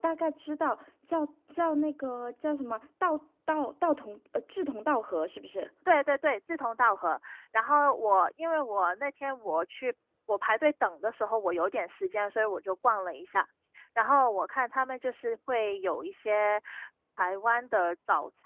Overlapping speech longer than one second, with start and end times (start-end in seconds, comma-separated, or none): none